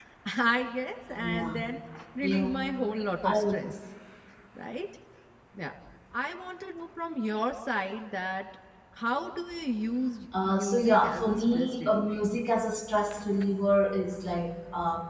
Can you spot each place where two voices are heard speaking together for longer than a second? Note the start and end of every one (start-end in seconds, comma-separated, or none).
10.5-12.2